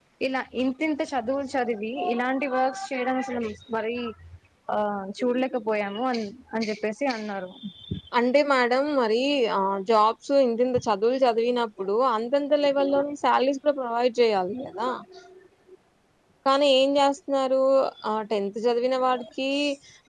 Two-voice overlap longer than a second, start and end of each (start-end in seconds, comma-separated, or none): none